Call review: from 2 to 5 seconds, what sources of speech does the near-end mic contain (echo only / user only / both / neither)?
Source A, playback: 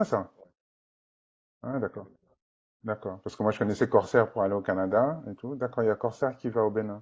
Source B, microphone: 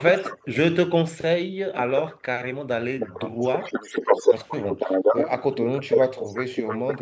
both